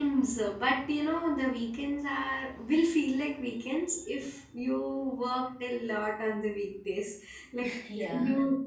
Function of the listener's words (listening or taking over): listening